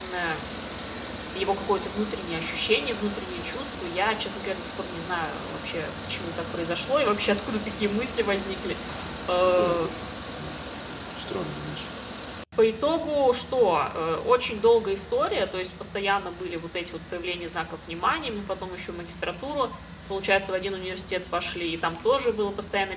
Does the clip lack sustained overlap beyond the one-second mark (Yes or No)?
Yes